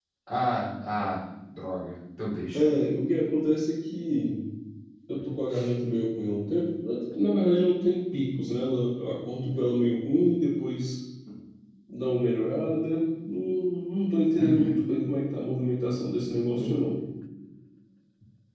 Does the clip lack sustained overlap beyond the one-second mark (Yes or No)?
Yes